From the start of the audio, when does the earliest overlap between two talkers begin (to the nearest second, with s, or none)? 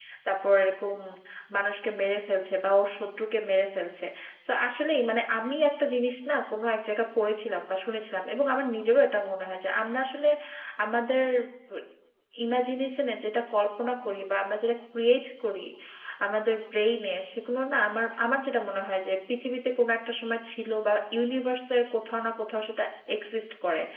none